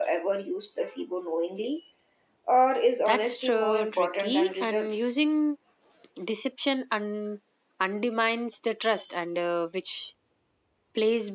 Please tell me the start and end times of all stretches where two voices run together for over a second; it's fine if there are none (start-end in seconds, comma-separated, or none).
3.1-5.2